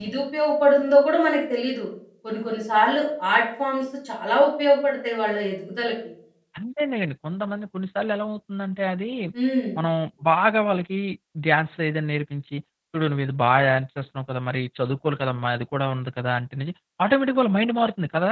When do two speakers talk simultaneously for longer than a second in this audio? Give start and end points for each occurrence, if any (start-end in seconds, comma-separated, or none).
none